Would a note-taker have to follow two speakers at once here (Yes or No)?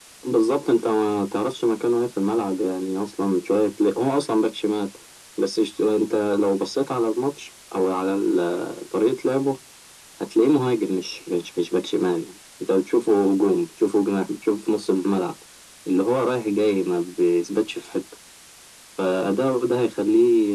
No